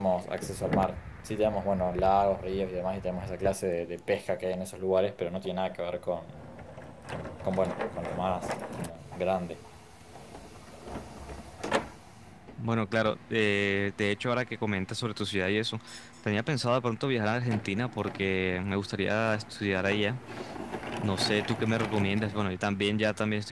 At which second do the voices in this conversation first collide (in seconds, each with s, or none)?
none